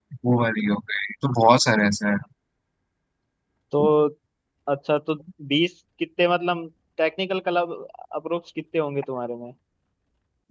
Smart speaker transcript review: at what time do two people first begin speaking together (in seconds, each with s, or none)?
none